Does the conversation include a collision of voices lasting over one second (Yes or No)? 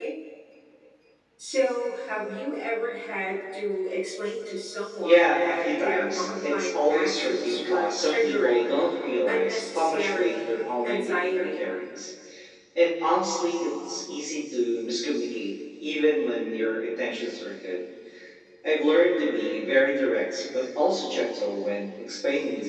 Yes